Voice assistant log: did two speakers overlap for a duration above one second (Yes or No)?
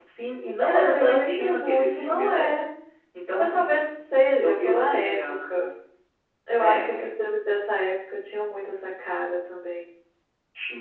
Yes